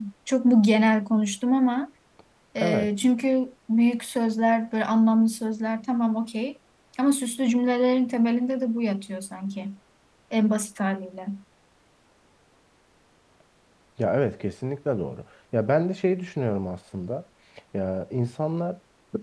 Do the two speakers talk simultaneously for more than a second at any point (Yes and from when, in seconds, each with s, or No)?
No